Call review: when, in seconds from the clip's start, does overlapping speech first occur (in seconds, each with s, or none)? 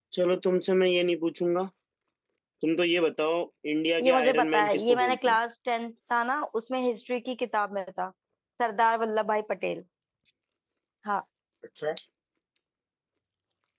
4.0 s